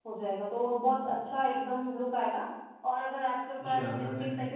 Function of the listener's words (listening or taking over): listening